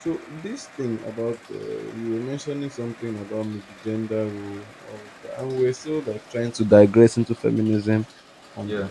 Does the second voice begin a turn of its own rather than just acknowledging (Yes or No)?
No